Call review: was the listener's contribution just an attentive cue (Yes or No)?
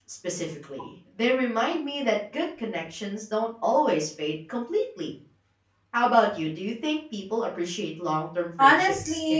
No